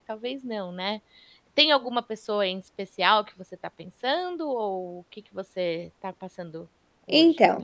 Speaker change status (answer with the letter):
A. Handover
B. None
A